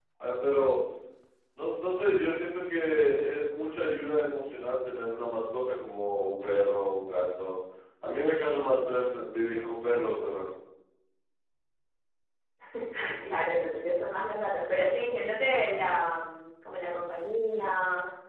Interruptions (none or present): none